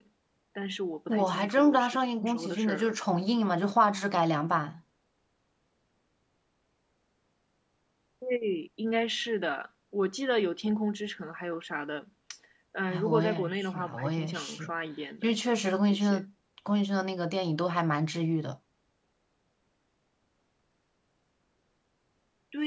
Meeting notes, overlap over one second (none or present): present